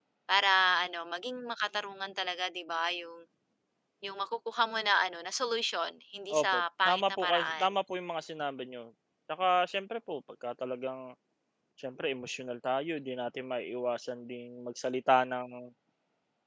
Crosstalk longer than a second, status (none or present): present